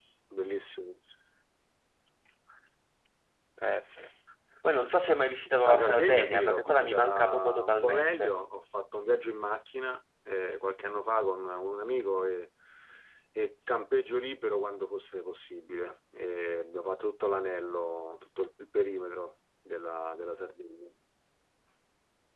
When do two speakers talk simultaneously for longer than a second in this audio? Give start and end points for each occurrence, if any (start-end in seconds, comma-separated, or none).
5.6-8.3